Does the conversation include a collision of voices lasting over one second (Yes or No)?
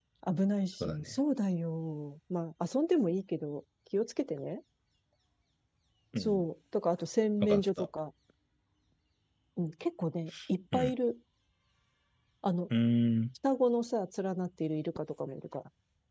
No